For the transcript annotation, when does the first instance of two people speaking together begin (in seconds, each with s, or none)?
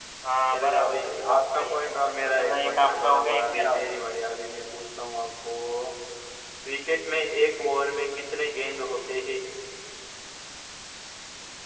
0.5 s